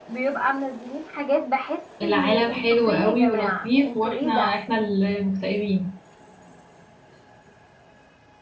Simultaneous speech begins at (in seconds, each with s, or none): 2.0 s